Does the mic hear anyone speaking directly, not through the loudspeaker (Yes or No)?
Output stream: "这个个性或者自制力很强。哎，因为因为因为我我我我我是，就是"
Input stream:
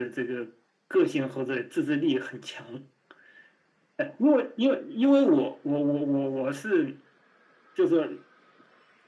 No